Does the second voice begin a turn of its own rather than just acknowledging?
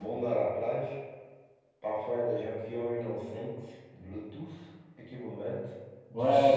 Yes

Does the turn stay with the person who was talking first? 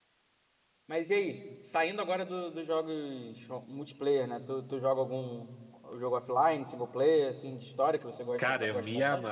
No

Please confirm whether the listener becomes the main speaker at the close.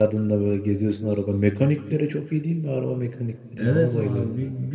Yes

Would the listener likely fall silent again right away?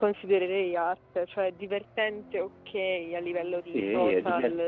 No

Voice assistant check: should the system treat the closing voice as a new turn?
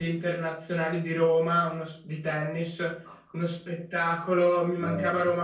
No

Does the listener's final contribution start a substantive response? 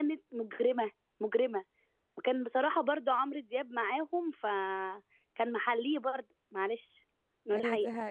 Yes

